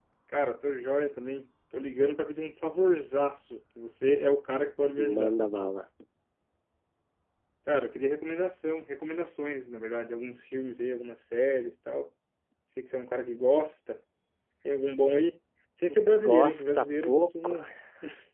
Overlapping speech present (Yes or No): Yes